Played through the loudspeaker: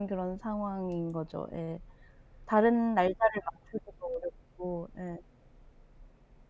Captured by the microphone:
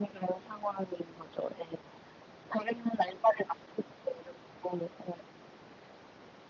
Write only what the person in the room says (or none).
none